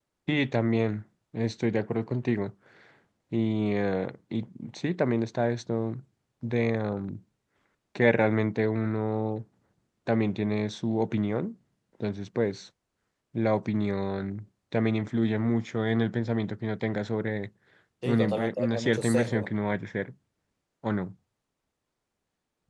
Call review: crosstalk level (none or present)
present